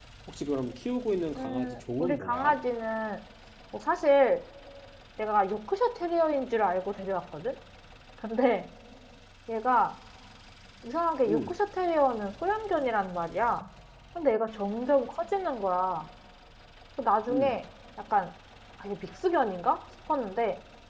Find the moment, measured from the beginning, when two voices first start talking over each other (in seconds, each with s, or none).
1.4 s